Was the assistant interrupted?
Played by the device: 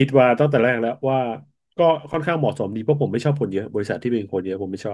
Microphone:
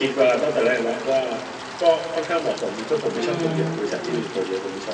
Yes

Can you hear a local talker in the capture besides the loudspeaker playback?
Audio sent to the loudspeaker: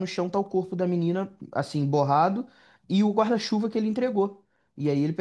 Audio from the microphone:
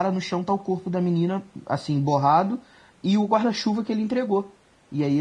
No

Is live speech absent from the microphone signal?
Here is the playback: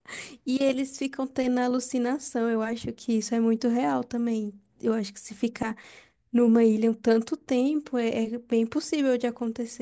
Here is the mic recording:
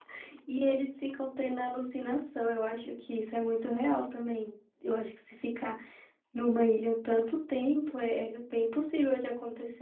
Yes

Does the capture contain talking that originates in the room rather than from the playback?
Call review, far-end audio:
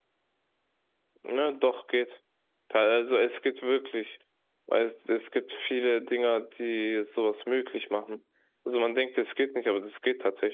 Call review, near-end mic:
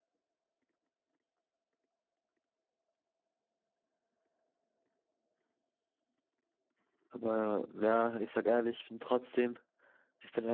Yes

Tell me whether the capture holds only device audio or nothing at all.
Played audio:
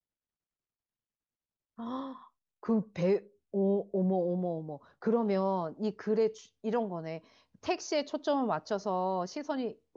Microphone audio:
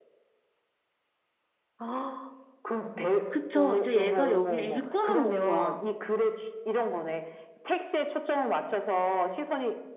No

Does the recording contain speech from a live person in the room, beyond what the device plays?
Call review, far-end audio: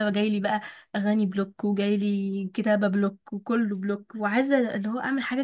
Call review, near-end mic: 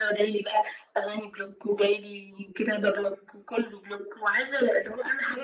No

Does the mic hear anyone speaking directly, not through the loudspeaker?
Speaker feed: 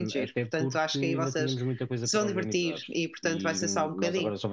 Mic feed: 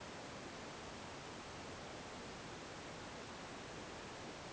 No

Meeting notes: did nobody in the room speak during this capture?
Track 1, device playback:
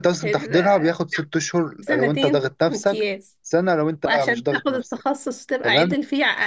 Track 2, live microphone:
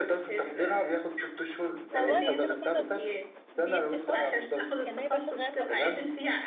No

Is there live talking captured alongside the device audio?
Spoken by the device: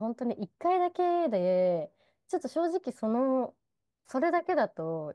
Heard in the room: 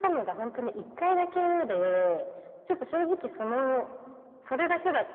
No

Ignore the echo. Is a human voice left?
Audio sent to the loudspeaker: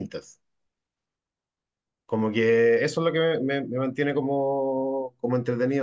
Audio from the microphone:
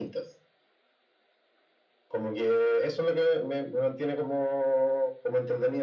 No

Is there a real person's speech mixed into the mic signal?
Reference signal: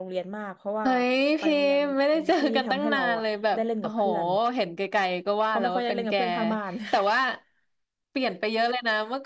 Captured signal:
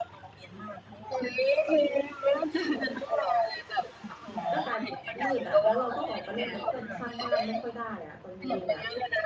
Yes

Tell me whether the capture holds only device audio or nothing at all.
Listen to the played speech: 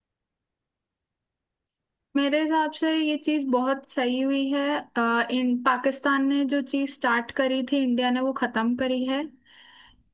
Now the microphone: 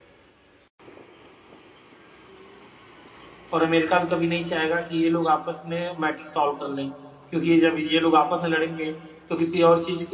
No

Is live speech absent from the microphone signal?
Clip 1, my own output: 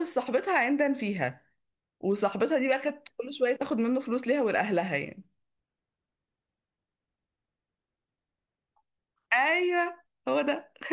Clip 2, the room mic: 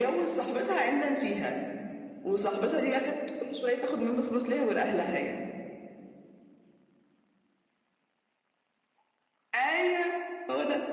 Yes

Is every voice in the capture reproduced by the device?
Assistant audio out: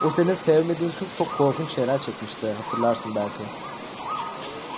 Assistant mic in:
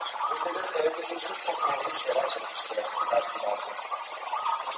Yes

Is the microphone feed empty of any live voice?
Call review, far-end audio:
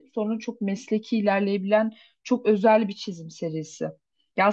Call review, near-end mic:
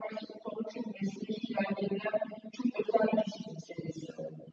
Yes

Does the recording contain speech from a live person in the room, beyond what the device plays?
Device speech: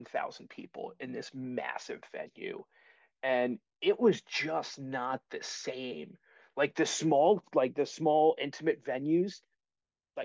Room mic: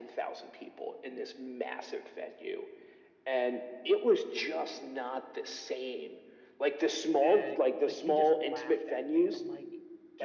Yes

